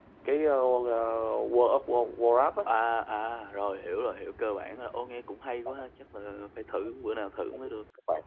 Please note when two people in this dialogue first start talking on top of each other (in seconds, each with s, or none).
none